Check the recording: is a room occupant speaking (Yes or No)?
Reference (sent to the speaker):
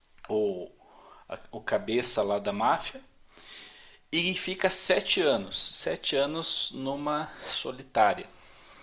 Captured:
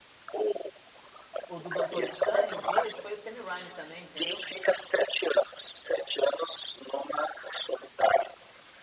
Yes